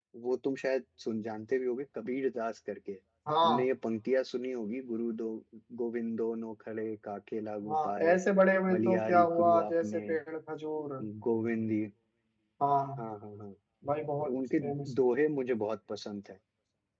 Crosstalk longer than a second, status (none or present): present